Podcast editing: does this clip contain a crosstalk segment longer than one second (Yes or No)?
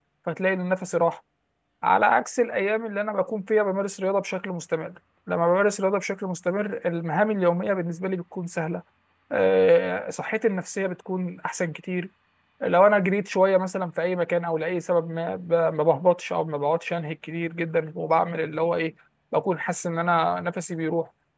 No